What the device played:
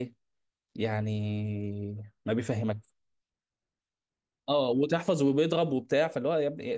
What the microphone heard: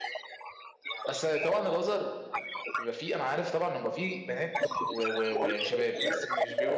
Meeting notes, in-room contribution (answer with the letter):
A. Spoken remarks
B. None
A